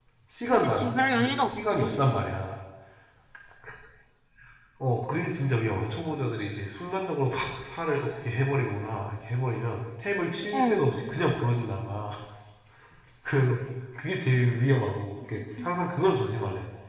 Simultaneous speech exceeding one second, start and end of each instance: 0.8-2.0

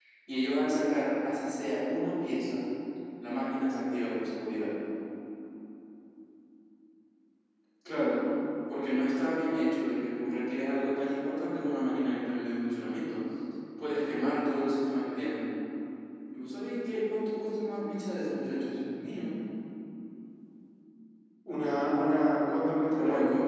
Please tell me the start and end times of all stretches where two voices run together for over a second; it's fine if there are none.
none

